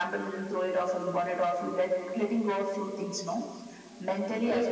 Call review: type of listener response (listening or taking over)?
taking over